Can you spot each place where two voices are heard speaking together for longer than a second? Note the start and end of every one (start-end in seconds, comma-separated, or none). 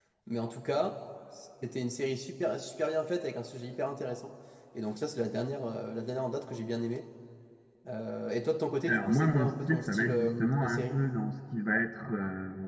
8.9-11.0